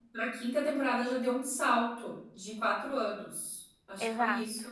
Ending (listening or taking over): taking over